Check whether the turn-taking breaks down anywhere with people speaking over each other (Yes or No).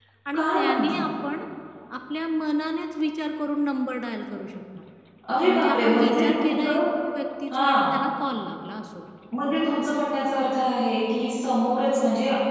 Yes